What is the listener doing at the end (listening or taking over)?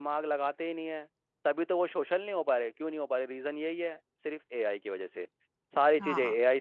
listening